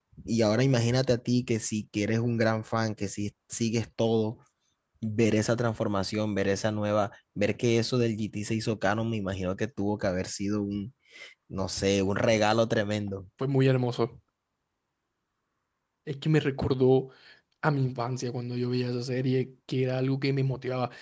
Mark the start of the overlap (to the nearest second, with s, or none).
none